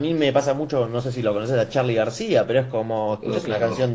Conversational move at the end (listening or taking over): listening